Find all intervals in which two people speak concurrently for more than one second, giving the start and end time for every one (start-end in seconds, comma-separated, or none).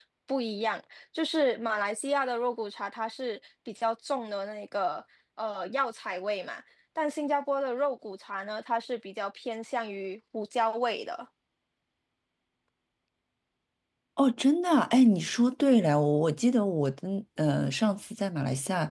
none